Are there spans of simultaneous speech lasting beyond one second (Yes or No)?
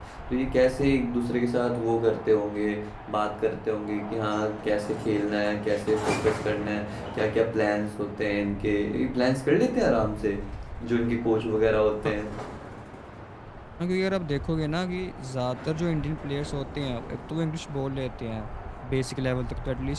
No